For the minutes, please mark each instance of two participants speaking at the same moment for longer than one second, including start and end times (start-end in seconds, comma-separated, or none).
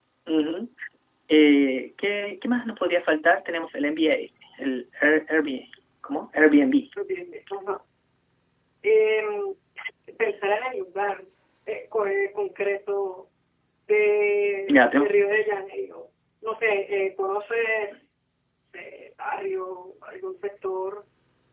none